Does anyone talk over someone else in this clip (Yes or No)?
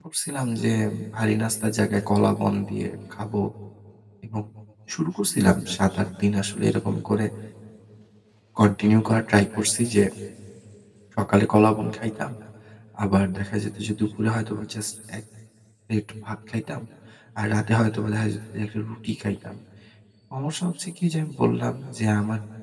No